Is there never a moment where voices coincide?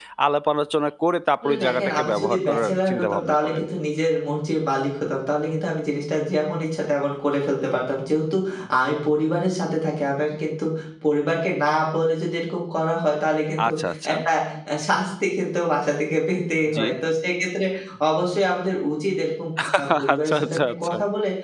No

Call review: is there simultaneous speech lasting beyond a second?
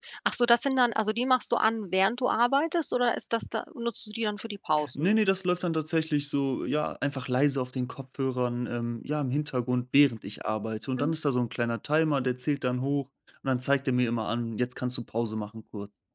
No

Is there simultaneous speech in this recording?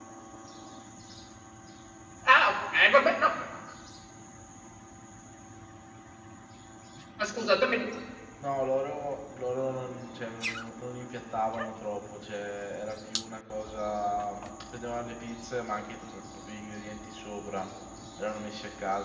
No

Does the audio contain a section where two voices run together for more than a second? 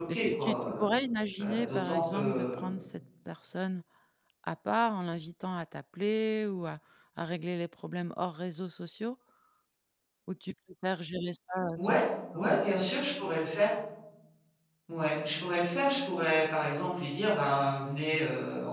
Yes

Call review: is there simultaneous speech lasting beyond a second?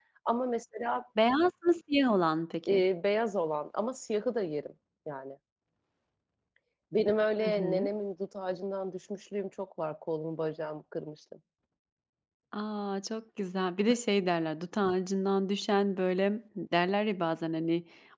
No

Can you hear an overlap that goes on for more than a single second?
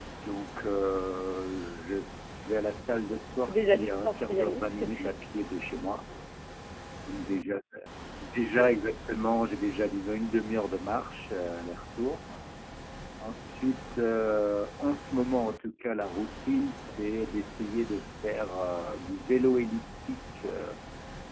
Yes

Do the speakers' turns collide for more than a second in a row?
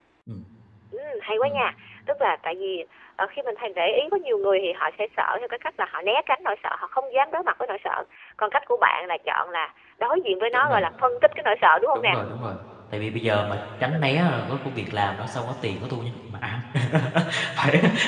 No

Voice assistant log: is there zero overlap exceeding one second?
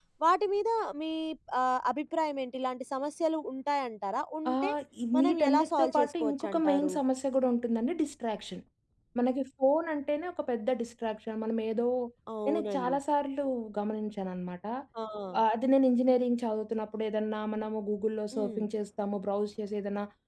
No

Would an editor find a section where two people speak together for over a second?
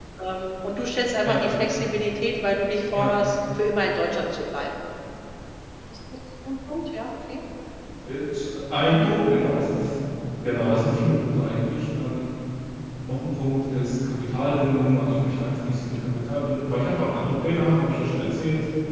No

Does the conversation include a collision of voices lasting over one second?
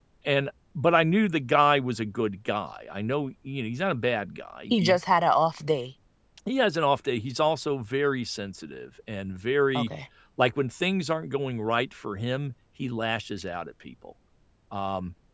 No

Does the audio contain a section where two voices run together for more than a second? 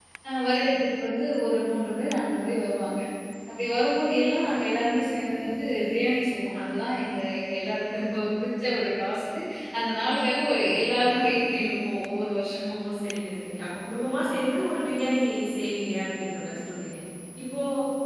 No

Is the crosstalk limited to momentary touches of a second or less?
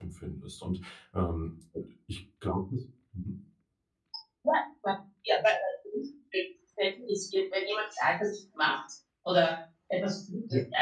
Yes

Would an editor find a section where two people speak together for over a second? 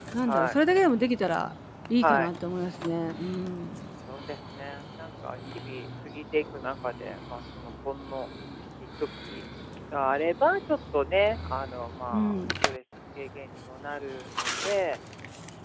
No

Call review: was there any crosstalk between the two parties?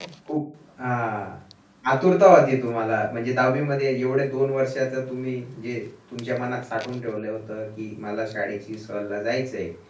No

